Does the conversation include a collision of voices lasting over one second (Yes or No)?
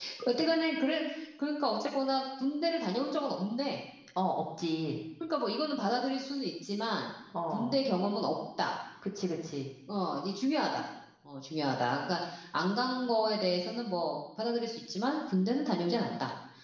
No